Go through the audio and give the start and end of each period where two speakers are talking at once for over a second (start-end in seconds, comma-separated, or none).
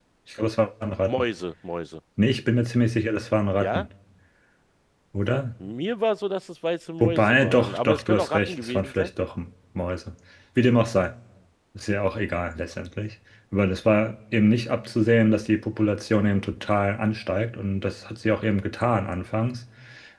7.0-9.1